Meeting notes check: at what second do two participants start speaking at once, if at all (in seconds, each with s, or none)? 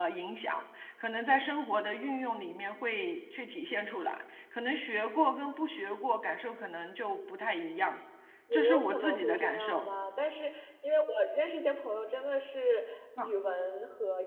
8.5 s